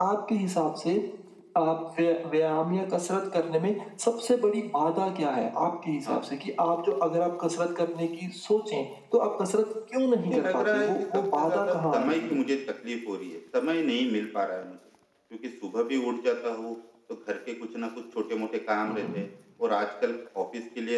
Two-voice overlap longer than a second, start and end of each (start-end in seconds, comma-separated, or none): 10.2-12.4